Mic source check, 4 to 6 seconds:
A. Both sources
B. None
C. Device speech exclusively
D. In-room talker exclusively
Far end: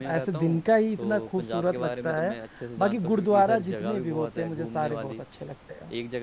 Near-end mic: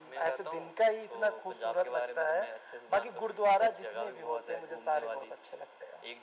C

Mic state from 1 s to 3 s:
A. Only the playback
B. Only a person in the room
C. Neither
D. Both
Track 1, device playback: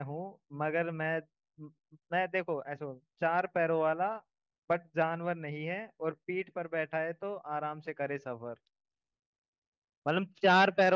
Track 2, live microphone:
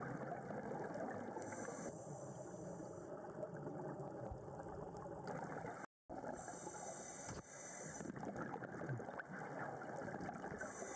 C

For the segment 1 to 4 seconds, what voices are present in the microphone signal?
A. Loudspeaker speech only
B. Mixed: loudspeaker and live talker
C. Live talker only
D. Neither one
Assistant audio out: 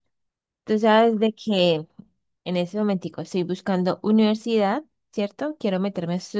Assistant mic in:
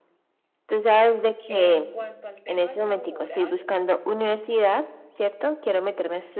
B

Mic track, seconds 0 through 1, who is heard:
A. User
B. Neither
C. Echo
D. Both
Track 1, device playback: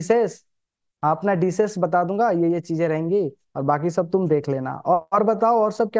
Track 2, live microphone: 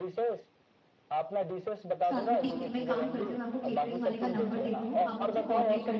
C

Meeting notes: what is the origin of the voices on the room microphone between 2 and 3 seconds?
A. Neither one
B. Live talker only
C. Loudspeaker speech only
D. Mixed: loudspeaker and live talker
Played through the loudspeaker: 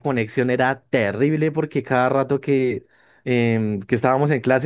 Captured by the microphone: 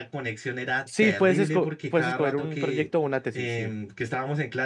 D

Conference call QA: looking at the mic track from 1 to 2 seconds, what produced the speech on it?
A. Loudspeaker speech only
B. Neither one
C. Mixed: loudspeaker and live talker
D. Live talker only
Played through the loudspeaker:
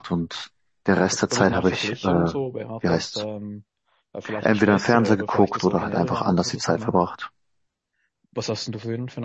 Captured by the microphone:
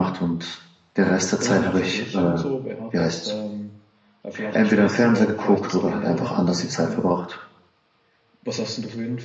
A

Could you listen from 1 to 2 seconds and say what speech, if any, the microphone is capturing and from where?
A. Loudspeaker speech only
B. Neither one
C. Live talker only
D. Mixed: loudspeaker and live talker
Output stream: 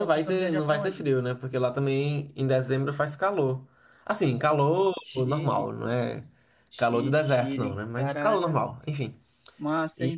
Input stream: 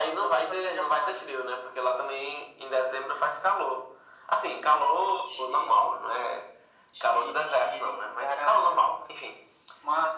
A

